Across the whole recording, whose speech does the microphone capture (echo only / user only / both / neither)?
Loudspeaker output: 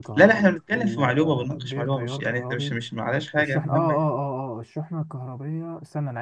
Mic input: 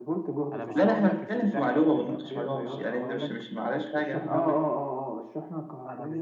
both